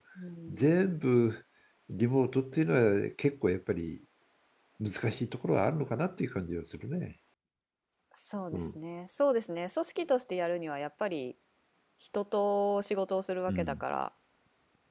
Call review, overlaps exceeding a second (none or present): none